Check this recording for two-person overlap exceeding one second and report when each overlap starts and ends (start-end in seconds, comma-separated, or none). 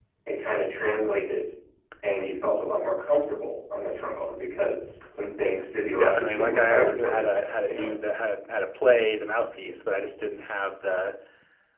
6.0-7.9